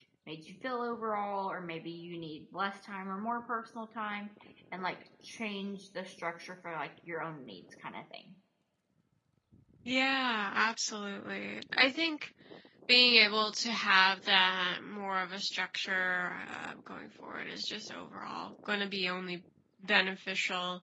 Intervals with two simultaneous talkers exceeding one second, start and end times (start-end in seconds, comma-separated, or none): none